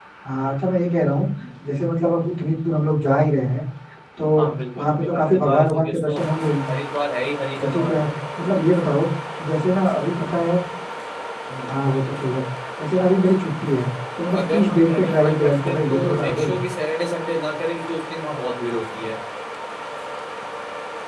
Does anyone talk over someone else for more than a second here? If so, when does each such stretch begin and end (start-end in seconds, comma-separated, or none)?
4.8-6.2, 14.4-16.5